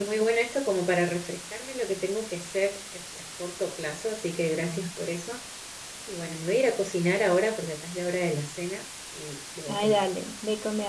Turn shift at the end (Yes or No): Yes